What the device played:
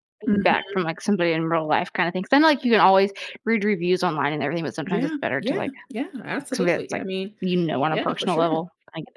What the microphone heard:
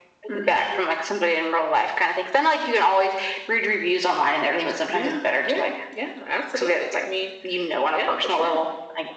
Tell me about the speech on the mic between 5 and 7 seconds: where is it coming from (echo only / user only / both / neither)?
echo only